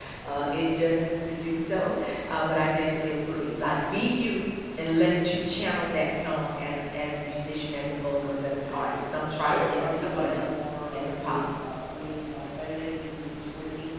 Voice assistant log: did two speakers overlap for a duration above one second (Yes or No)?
Yes